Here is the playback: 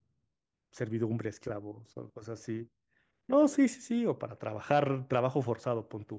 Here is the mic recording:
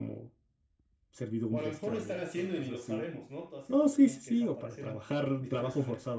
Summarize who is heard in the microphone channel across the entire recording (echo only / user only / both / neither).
both